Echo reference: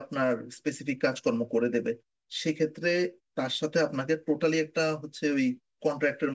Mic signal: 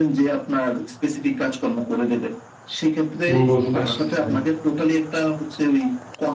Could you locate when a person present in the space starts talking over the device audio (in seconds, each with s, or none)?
3.3 s